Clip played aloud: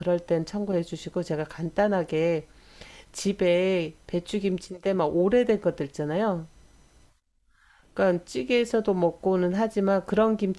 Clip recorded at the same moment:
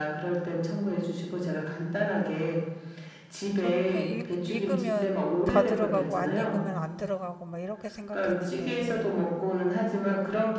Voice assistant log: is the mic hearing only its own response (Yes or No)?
No